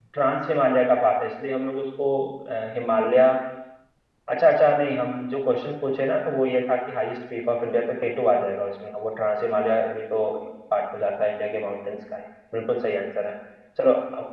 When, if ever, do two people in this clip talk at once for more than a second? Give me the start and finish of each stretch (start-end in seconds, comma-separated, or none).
none